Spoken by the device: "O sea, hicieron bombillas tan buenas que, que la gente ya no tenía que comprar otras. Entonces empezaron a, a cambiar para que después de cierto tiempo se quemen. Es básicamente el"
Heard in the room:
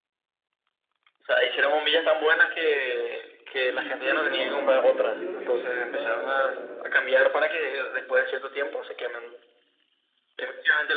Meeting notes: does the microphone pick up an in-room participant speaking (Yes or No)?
Yes